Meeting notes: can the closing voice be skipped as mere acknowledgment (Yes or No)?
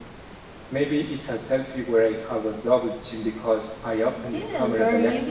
No